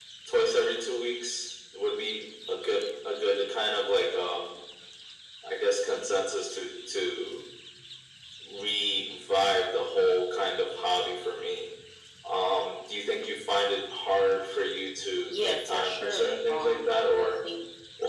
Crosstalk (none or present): present